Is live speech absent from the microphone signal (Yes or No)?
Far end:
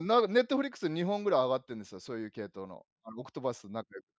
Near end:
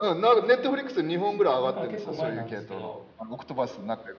No